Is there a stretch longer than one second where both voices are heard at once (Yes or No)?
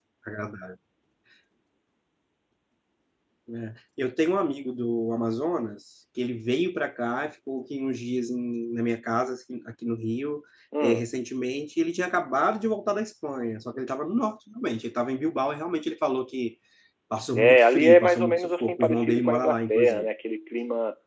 Yes